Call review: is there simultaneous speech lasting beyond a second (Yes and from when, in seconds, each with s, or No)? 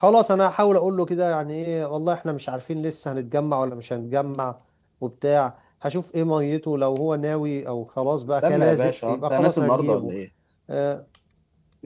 Yes, from 8.3 s